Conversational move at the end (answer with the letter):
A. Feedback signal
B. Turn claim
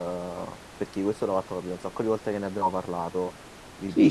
B